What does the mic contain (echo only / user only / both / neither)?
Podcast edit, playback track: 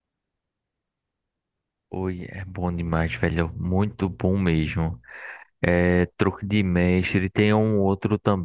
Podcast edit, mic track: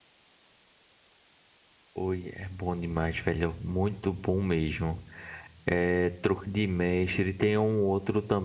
echo only